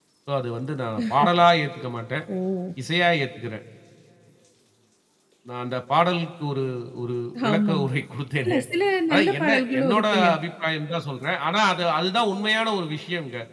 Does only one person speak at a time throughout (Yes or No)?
No